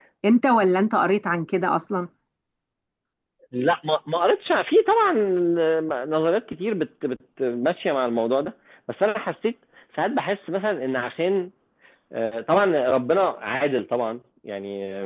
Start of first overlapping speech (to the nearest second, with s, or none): none